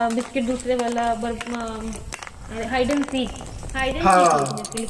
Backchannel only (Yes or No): Yes